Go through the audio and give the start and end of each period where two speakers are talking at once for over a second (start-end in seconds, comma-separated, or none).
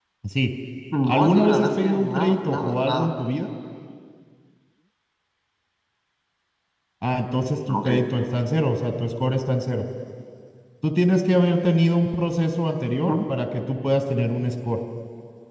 1.1-3.1